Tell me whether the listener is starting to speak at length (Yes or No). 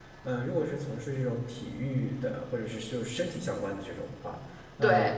No